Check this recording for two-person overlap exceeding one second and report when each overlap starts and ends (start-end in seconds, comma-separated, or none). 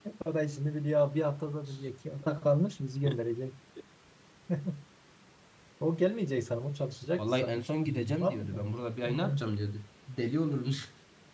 7.2-8.6